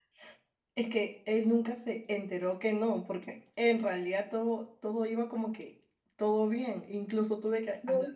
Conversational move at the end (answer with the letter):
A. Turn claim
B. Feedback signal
B